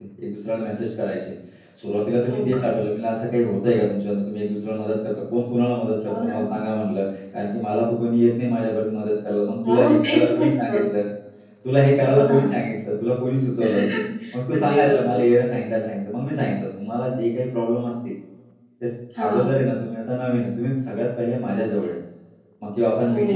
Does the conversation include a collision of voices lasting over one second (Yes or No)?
Yes